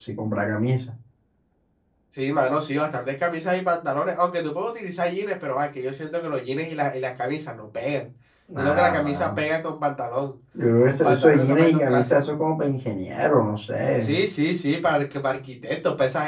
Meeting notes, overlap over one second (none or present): present